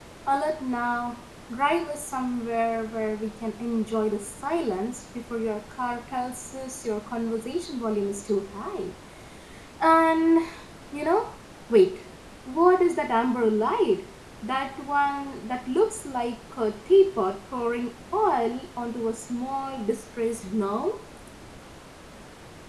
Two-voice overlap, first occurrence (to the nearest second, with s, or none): none